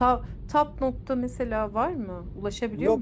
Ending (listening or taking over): taking over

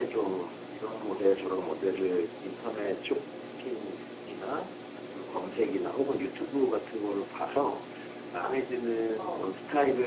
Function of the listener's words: listening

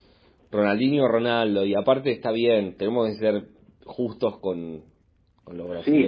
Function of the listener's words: taking over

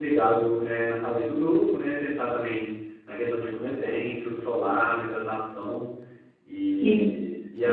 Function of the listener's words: taking over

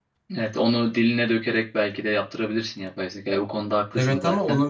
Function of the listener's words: taking over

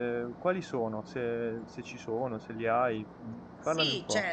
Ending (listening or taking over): taking over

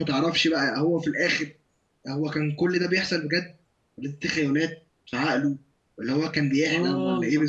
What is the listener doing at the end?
listening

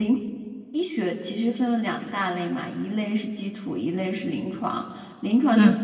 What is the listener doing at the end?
listening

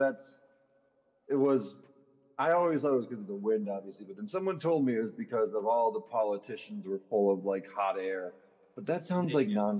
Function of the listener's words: listening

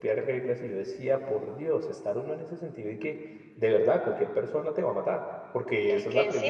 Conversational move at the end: taking over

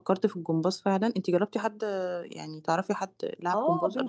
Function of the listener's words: taking over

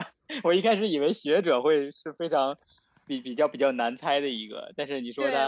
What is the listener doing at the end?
taking over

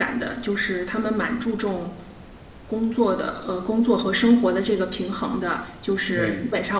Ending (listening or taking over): listening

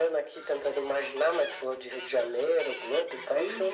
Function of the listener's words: taking over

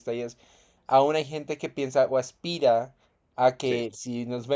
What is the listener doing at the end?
listening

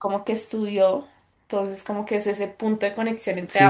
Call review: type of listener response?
taking over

